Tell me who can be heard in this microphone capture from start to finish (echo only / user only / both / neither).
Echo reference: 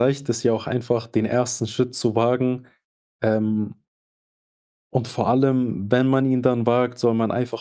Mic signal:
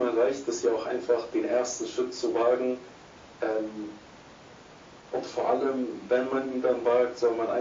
echo only